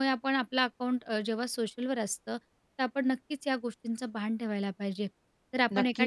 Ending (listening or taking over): taking over